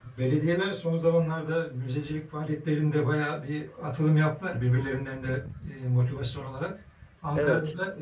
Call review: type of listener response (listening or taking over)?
listening